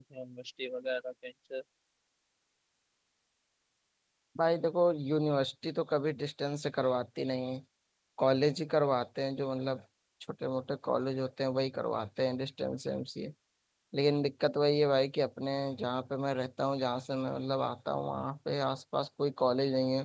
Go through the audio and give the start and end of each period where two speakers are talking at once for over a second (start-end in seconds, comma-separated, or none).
none